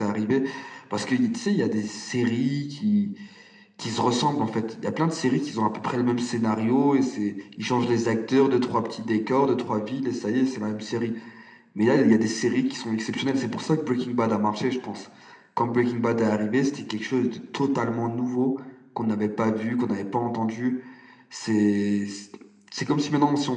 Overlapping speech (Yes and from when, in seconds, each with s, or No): No